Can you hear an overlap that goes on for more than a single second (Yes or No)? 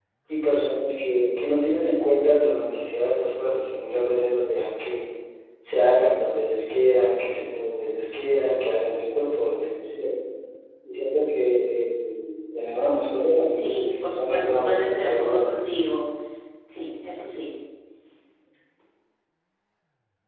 Yes